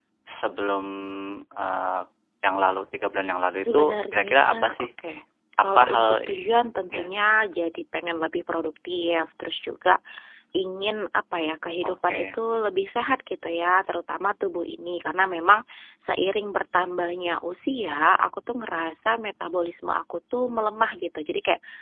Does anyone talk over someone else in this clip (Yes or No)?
Yes